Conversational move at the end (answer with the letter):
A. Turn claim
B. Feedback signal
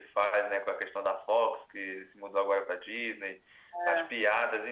B